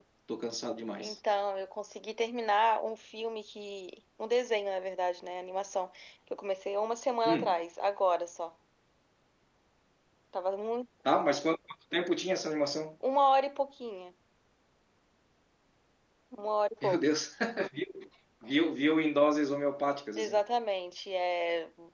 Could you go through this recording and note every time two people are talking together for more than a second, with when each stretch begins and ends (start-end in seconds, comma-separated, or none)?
none